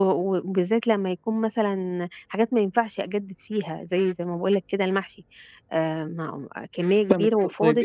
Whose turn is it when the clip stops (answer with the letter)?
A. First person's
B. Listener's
B